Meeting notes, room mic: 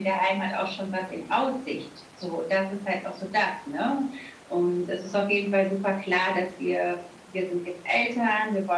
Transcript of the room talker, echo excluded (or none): none